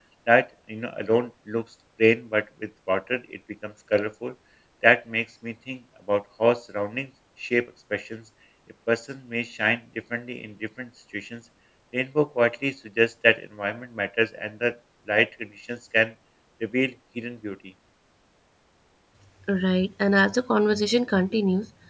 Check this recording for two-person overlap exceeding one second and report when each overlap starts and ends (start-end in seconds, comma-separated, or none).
none